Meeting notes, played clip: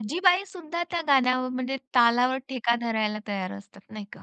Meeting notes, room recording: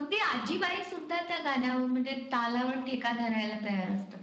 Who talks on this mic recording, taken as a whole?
echo only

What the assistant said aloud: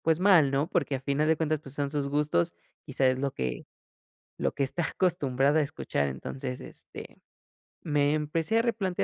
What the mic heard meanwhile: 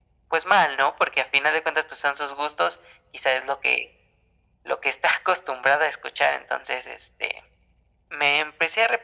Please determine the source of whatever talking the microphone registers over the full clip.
echo only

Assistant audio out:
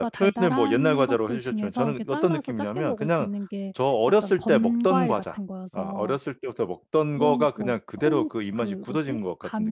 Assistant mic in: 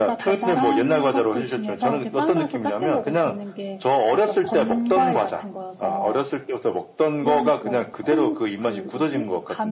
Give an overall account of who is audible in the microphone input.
echo only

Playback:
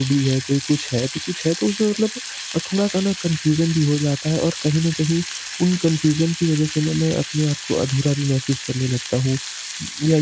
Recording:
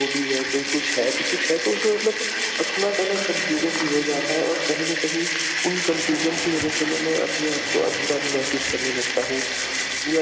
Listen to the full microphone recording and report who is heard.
echo only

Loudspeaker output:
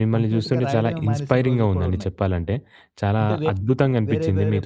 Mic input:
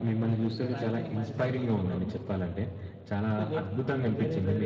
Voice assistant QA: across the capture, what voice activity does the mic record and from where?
echo only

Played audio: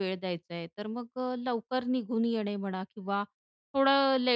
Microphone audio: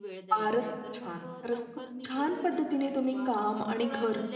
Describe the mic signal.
both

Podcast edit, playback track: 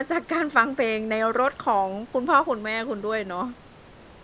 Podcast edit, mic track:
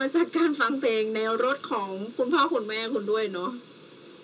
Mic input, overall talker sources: echo only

